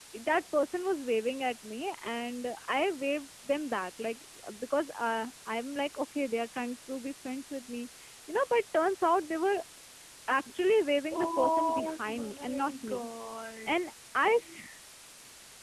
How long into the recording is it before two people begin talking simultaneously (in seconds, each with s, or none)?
11.1 s